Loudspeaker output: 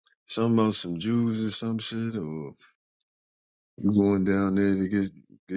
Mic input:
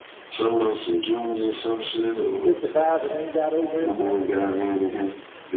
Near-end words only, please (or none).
You 55 and ain't got over it yet? Yeah.